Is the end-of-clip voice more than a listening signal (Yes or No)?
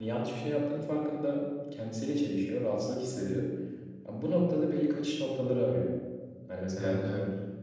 No